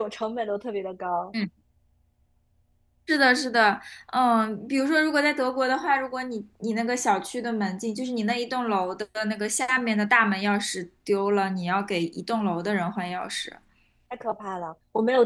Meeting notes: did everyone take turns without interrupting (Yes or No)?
Yes